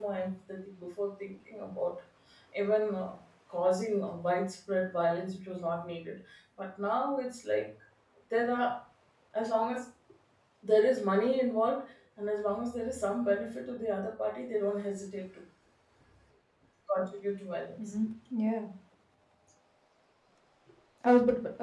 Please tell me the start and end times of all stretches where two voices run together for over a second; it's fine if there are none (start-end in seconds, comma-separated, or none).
none